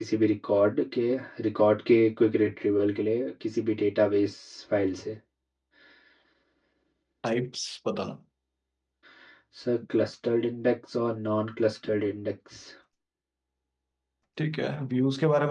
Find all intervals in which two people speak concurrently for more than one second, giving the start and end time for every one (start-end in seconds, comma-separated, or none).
none